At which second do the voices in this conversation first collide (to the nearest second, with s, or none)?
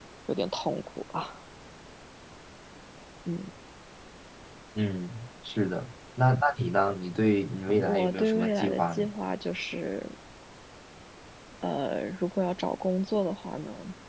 8 s